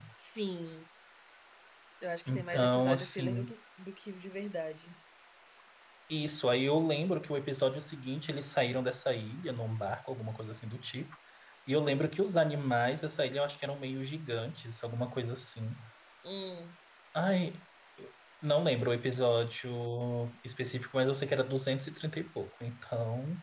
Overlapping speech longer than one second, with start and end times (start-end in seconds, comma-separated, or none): 2.3-3.5